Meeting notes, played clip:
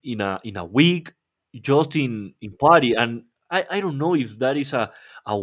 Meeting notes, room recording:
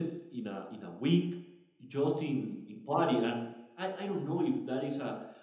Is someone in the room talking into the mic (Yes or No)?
No